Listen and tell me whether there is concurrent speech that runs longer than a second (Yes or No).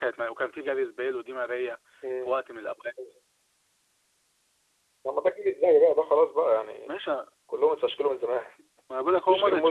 No